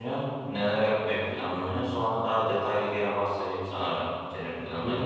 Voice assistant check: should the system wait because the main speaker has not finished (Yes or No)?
No